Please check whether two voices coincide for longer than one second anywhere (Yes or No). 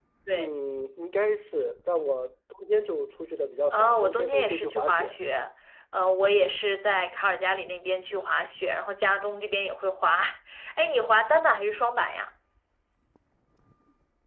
Yes